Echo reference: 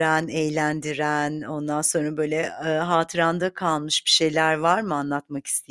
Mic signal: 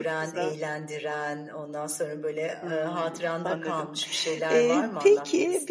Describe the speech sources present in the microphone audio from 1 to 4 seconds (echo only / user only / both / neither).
both